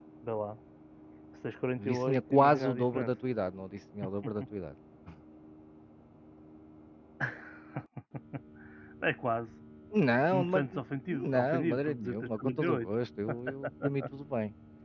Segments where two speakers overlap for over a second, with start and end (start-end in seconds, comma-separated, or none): 1.8-3.1, 11.1-12.9